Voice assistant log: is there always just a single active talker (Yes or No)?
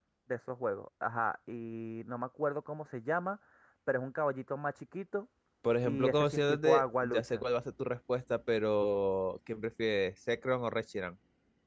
No